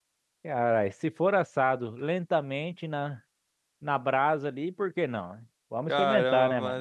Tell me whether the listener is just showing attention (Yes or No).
No